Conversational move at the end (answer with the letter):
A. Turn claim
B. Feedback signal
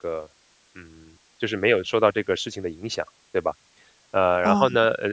B